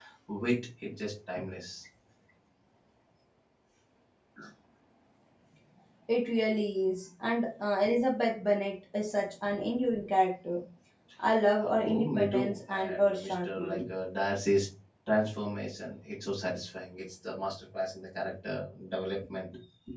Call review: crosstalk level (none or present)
present